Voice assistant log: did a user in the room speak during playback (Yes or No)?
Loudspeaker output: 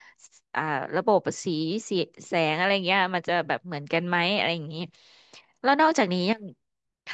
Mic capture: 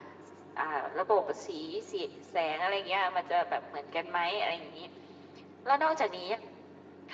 No